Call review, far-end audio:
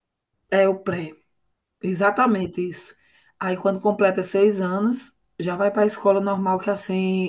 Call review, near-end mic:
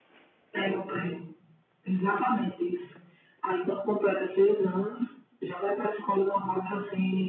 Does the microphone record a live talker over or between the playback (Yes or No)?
No